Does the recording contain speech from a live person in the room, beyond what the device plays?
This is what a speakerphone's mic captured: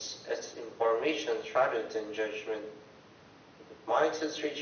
No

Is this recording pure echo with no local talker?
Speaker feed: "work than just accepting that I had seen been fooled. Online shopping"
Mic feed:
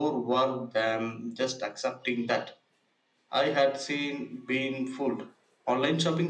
Yes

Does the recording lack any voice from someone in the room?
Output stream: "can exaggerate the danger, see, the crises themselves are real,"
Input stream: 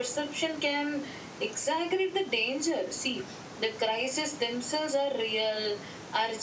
Yes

